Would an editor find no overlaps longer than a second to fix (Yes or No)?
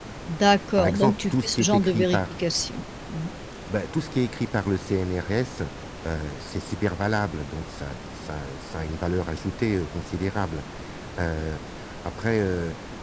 No